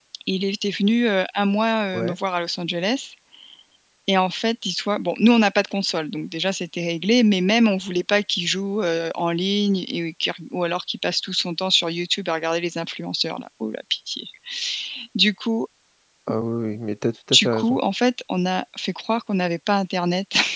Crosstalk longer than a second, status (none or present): none